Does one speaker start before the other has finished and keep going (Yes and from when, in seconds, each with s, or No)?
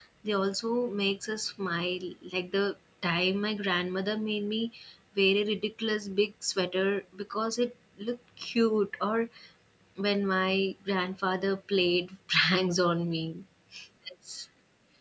No